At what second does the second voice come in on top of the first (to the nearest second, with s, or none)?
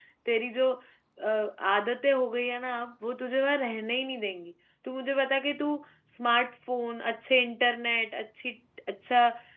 none